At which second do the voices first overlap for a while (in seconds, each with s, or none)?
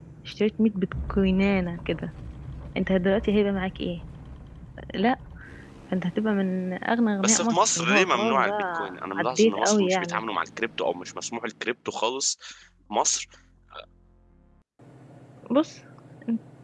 7.2 s